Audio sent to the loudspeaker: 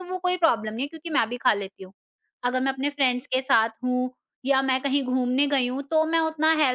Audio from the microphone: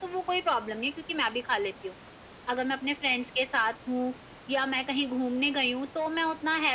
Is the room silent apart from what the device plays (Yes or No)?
Yes